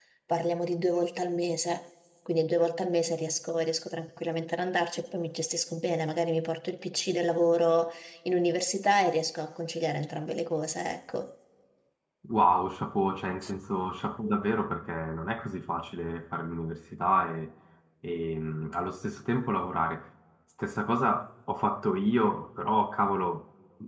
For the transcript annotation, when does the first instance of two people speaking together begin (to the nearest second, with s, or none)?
none